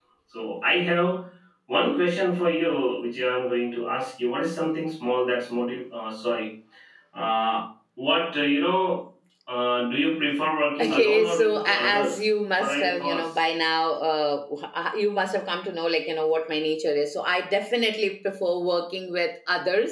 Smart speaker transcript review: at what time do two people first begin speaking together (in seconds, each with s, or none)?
10.8 s